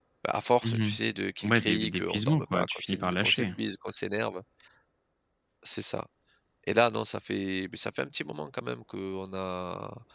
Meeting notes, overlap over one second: present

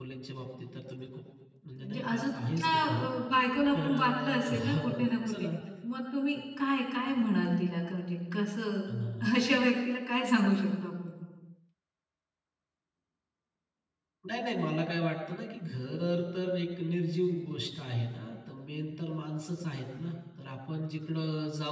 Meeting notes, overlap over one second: present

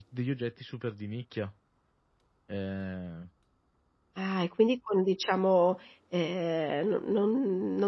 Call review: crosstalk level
none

